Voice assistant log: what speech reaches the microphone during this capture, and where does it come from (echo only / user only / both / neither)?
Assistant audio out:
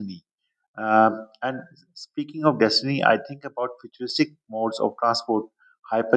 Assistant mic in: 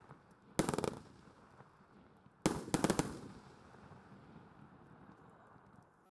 neither